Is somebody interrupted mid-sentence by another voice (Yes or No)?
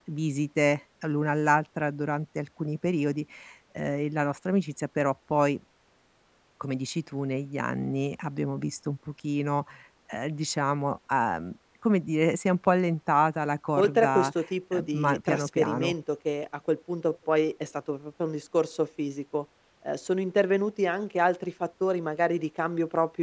Yes